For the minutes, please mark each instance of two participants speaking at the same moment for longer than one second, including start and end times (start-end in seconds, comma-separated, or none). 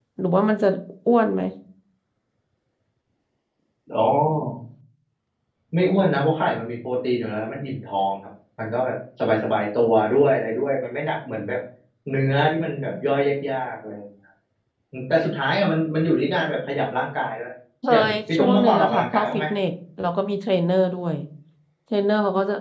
17.9-19.4